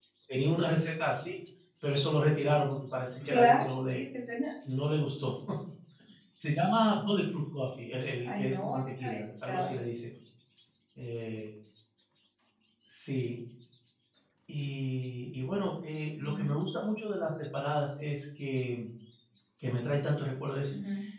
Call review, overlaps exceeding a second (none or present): present